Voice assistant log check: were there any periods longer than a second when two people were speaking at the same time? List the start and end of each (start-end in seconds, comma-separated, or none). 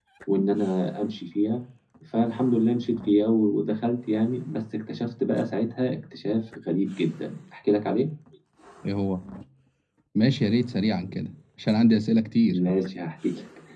none